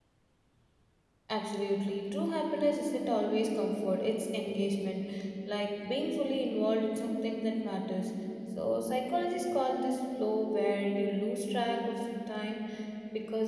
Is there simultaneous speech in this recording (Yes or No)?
No